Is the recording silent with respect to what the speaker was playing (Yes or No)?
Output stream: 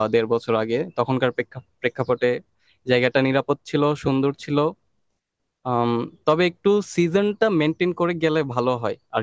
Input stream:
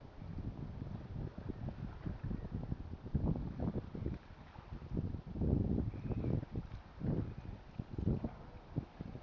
Yes